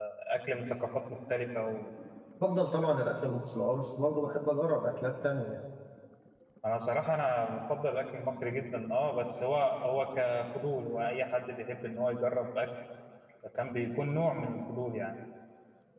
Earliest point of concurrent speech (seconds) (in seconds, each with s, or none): none